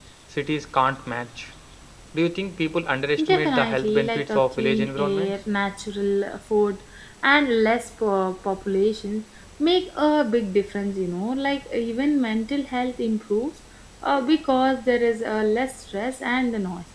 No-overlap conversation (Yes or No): No